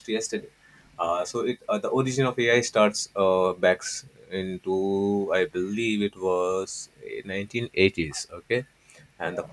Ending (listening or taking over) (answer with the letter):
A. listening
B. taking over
A